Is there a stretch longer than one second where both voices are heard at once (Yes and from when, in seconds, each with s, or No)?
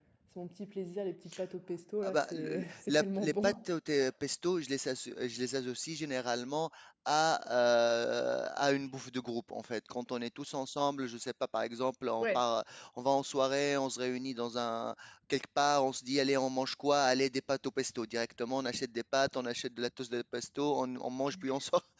Yes, from 2.0 s